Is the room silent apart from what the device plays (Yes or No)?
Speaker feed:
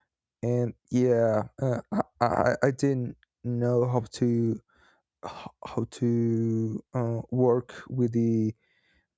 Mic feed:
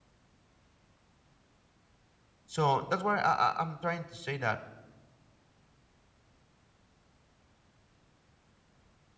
No